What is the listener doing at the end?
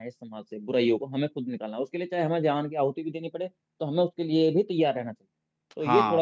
taking over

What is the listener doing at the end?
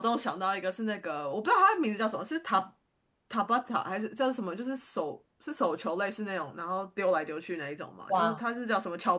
listening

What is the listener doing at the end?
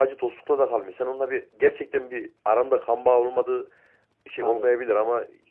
listening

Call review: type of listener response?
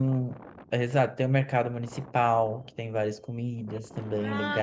taking over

